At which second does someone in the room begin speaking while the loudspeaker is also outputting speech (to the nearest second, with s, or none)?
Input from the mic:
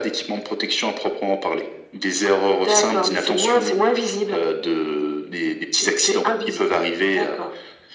none